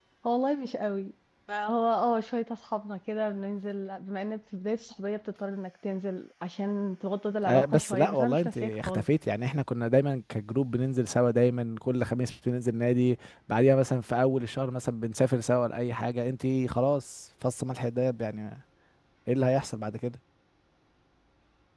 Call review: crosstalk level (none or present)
present